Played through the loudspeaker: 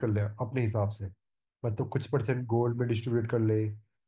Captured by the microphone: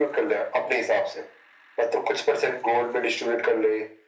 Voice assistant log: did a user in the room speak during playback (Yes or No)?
No